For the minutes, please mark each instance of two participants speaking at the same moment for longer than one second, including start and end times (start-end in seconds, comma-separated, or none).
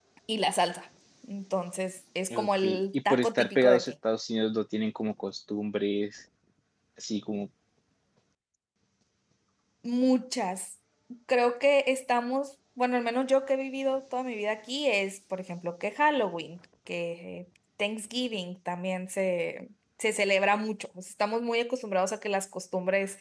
2.3-3.9